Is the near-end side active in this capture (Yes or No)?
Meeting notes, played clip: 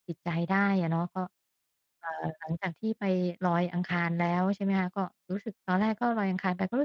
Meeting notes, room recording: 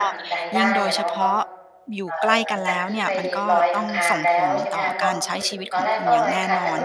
Yes